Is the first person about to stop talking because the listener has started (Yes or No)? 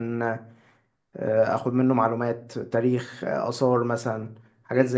Yes